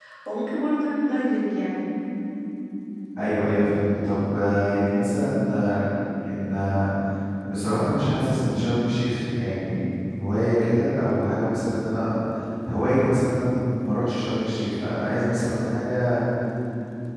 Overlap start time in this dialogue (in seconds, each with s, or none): none